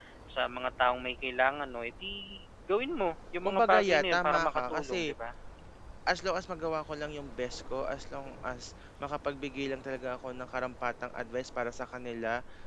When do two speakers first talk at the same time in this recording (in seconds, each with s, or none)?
3.5 s